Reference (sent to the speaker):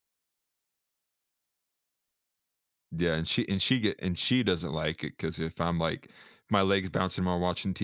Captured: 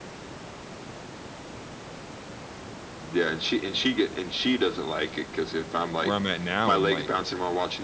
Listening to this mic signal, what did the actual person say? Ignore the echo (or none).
where I'm at now and, like,